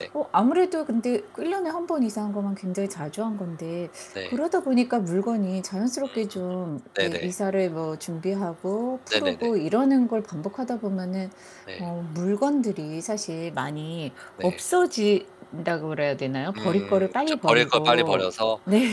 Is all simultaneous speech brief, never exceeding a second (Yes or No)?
No